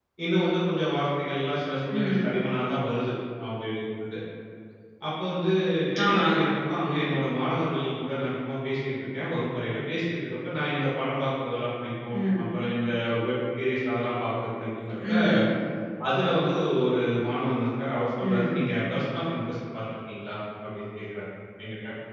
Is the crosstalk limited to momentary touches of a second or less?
Yes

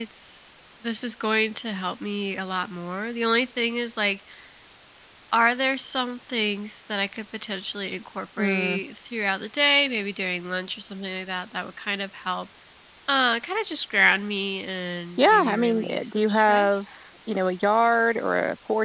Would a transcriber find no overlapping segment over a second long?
No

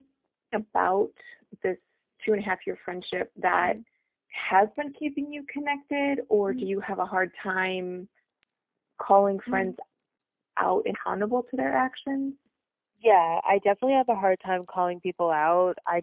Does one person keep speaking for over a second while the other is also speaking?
No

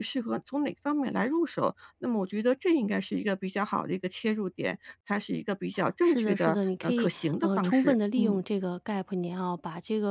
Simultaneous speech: Yes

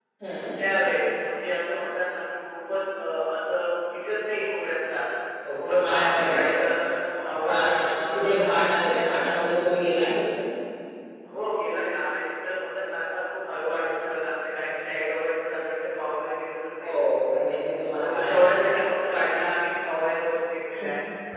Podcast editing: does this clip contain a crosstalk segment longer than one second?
Yes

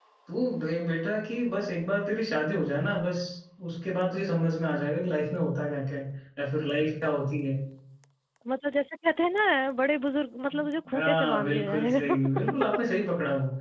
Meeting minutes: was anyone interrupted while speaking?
Yes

